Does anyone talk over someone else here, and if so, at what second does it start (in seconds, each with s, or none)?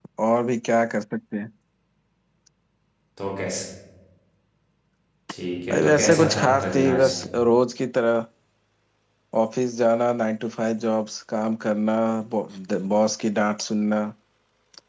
5.7 s